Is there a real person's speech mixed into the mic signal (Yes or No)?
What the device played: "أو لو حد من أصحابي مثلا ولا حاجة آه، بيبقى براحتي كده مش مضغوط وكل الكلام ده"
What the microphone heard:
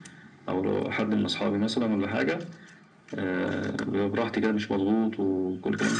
No